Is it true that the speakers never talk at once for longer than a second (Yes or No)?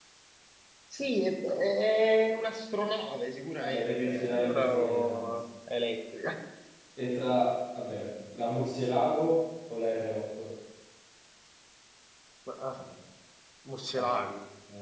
No